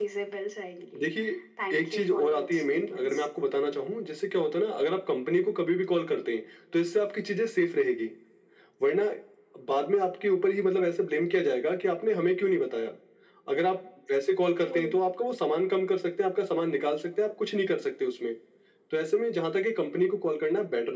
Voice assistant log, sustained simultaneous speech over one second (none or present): present